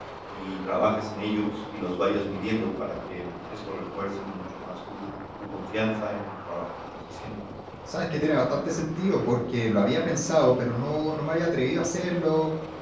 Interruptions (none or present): none